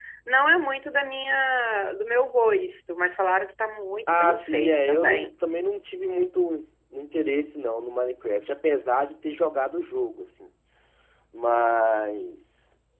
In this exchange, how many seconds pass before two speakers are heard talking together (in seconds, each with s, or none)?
4.1 s